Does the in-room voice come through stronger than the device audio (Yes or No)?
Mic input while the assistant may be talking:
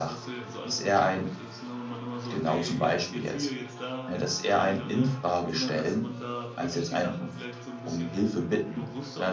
No